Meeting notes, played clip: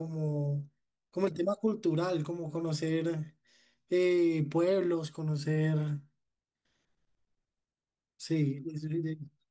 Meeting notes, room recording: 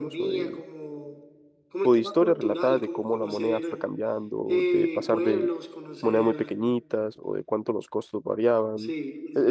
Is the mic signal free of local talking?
No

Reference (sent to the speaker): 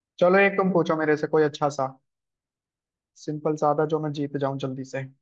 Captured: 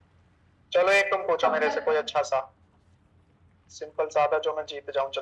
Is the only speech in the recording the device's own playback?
No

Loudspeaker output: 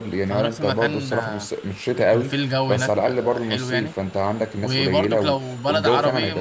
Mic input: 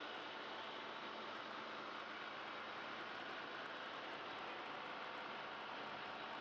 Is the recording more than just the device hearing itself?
No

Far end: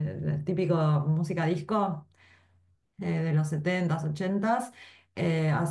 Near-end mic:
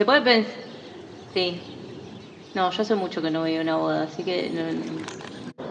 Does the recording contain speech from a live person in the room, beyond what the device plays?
Yes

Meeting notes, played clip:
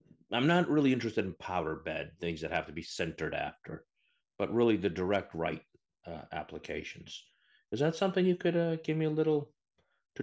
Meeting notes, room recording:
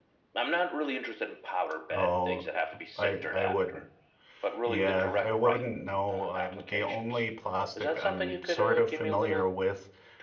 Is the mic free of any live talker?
No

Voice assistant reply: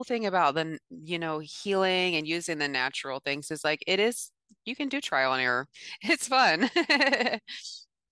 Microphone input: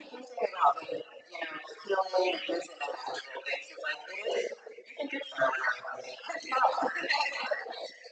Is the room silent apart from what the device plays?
Yes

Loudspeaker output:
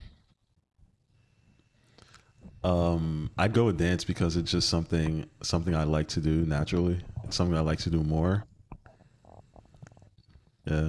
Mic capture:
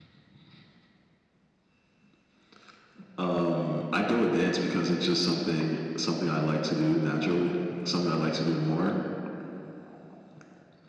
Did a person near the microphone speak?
No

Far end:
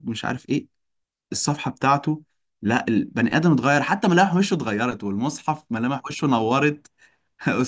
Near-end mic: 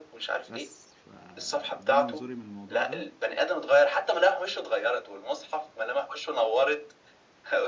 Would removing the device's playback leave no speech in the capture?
No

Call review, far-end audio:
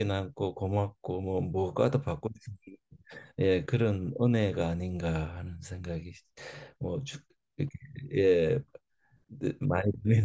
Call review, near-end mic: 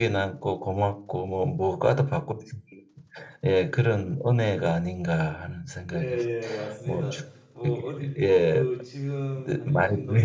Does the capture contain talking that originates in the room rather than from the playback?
Yes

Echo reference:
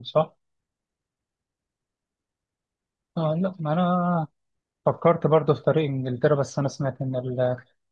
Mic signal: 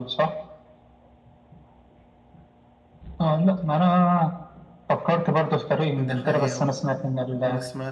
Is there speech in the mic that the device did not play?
Yes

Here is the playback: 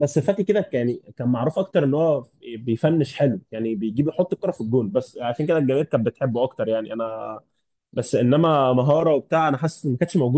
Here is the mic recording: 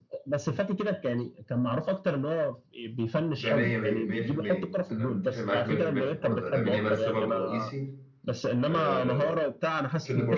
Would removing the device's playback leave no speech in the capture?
No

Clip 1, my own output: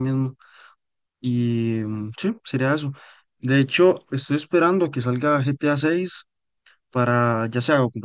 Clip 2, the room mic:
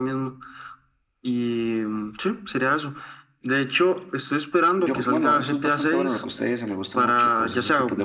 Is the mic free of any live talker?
No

